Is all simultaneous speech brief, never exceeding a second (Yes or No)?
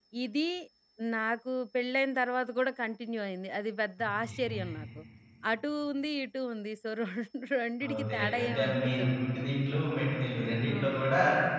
No